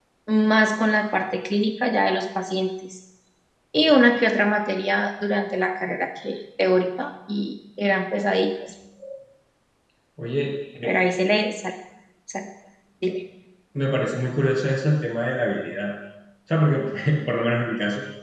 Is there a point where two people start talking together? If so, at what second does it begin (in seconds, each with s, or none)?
none